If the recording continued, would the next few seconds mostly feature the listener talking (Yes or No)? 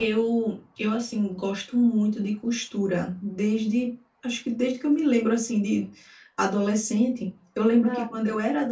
No